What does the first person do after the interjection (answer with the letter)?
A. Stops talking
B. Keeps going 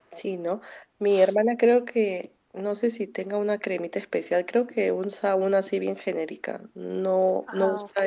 B